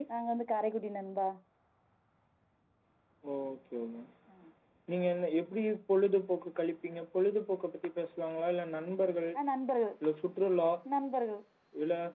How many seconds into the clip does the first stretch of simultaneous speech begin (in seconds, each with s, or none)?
none